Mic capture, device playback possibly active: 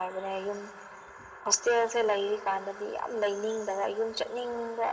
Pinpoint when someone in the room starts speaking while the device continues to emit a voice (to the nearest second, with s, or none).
none